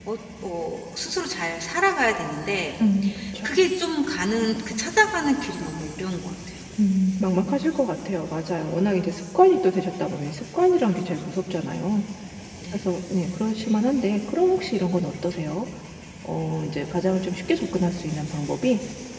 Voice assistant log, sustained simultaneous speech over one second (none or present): none